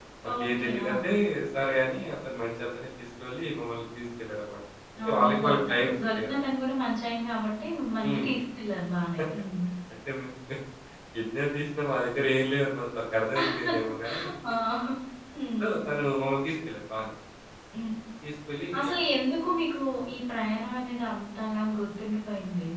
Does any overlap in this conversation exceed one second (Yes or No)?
Yes